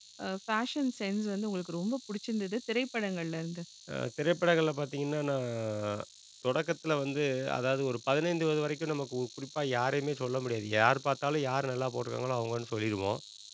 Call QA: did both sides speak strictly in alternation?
Yes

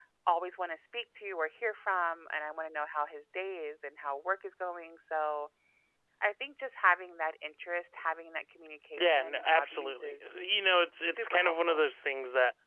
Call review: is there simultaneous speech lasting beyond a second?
Yes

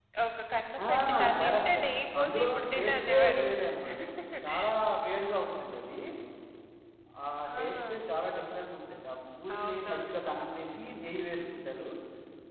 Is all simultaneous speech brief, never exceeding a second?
No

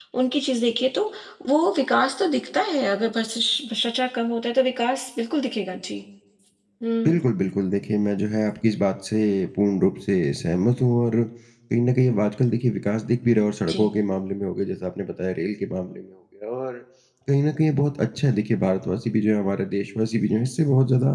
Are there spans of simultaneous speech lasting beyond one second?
No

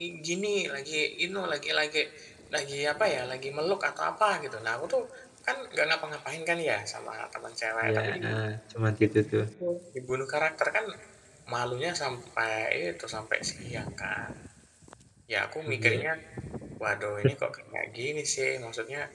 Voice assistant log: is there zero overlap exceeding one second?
Yes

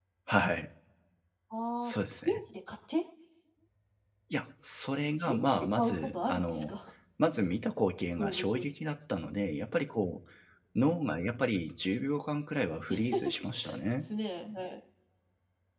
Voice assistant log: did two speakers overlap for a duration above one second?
Yes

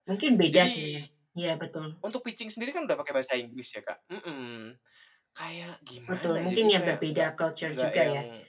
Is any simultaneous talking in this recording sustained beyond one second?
Yes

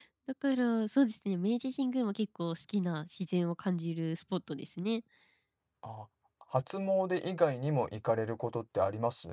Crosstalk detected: No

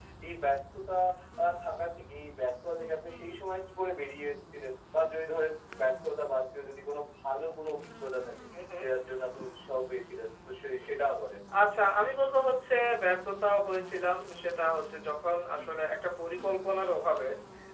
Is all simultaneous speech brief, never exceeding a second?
Yes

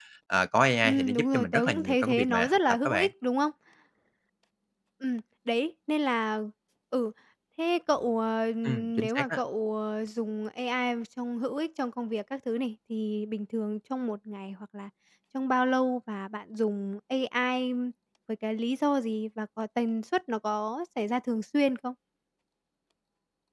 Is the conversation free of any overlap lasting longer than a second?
No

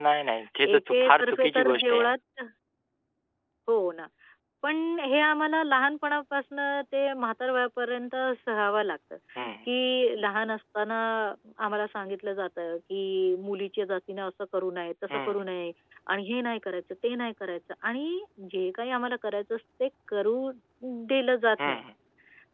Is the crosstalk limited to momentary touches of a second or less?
No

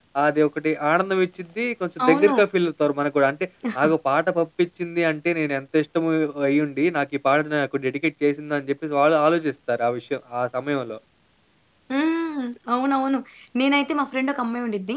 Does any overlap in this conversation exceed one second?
No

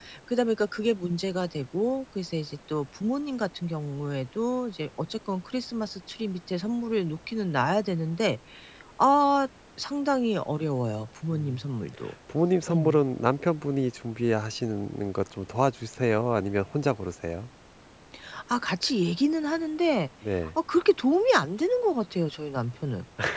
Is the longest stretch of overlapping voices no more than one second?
Yes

